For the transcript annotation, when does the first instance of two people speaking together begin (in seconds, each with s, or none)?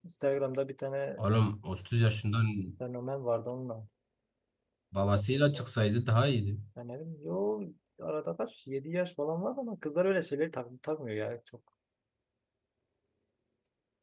none